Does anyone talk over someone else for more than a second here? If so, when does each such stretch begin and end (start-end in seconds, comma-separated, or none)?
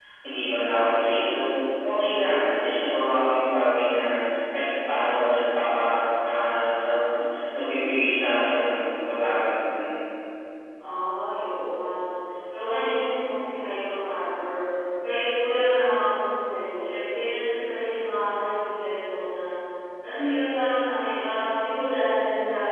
none